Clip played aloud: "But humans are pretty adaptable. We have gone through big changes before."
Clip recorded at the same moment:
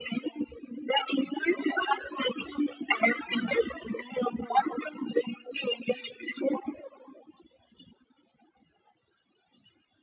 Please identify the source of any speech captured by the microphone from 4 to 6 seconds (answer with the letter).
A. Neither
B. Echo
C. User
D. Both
B